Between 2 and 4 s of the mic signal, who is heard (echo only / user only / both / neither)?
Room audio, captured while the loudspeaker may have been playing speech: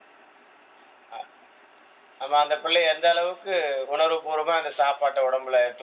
echo only